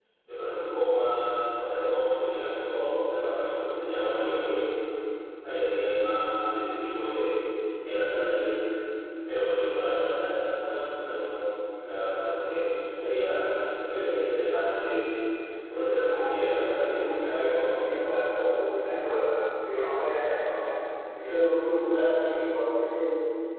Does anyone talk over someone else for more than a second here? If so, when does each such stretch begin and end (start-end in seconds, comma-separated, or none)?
16.1-17.8